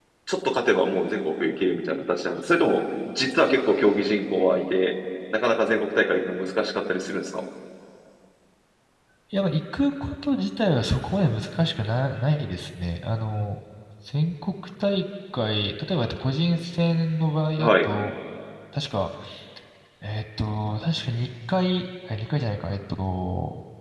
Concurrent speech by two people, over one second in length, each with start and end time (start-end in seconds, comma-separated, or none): none